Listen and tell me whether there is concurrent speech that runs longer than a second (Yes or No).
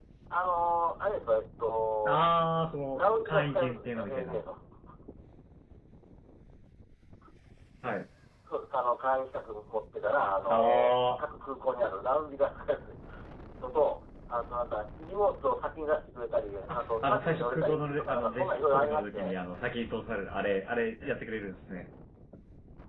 Yes